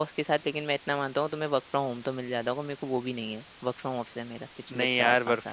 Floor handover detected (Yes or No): Yes